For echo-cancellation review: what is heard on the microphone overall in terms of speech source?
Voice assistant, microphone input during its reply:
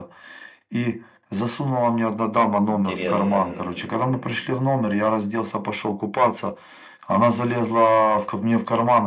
both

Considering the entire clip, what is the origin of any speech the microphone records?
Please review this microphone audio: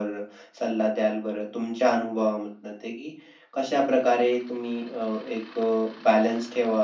echo only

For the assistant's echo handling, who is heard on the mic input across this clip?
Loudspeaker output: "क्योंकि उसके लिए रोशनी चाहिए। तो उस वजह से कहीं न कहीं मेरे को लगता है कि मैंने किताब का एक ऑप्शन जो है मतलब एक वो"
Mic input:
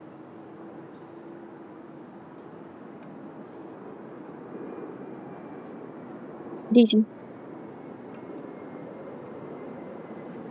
user only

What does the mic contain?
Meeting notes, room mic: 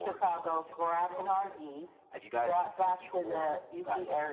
echo only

